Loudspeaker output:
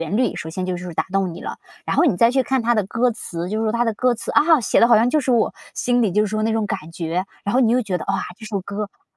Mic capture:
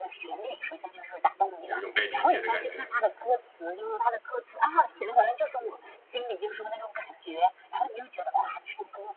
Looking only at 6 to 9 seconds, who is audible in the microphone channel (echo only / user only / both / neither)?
echo only